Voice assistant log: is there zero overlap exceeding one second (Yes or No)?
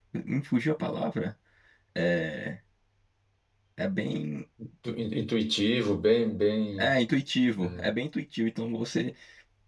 Yes